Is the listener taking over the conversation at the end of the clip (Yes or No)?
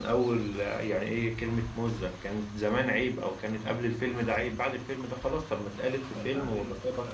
No